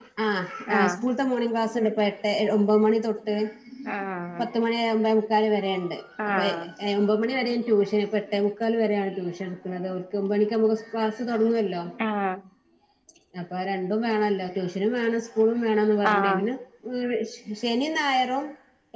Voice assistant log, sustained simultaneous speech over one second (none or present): none